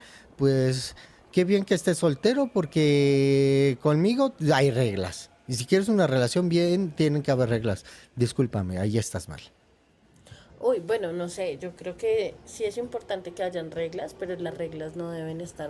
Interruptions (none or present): none